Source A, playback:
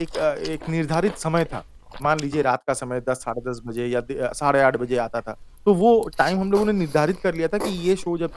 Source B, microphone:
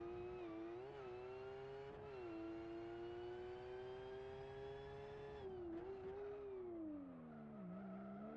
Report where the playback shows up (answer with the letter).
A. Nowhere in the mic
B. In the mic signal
A